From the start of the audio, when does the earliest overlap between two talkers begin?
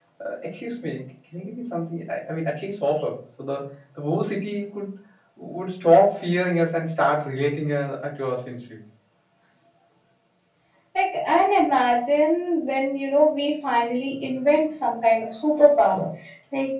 none

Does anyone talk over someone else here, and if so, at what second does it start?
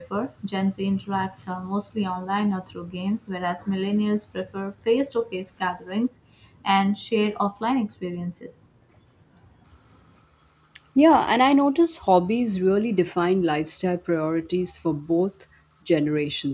none

